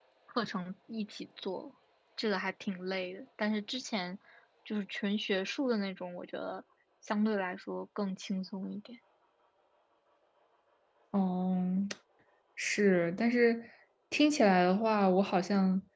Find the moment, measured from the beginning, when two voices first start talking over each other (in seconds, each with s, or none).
none